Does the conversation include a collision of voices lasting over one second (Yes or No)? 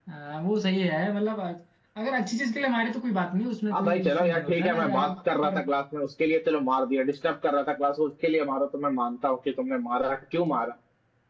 Yes